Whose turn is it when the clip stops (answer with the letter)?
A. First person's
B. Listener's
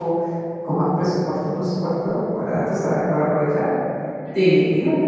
A